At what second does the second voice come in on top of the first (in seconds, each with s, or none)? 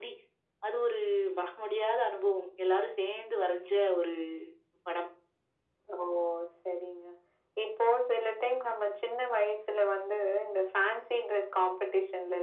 none